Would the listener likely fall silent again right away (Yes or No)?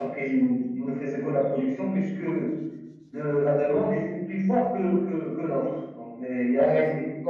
No